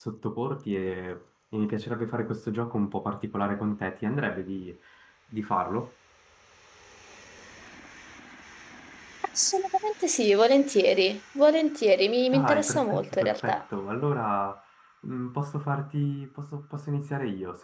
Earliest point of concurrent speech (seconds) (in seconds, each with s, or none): 12.3 s